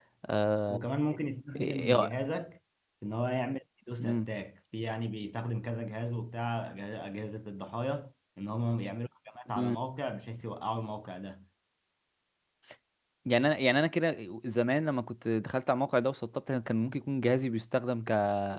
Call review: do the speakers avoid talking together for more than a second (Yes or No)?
Yes